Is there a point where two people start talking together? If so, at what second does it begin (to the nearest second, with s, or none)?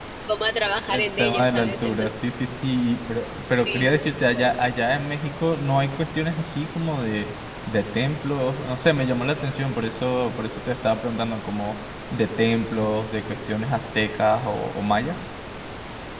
1 s